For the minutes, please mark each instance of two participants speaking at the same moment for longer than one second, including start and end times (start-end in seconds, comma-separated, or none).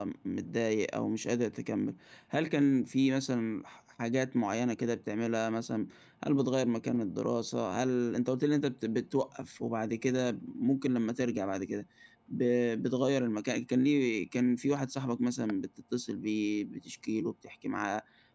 none